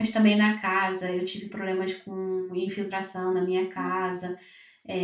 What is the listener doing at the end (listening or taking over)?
listening